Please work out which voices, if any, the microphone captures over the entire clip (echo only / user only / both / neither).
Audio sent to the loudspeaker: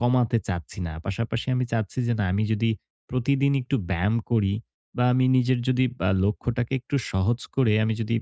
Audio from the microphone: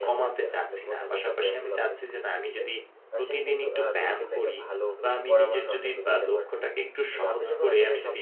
both